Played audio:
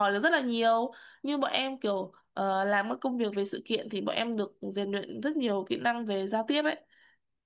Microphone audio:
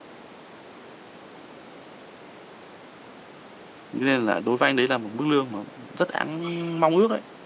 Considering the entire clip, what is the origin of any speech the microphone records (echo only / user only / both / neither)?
user only